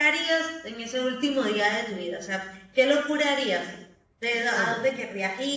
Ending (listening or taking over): listening